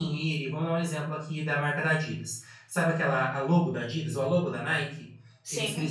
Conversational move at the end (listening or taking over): listening